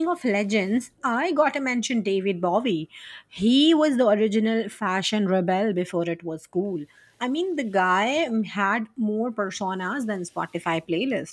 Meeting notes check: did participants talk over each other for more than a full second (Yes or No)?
No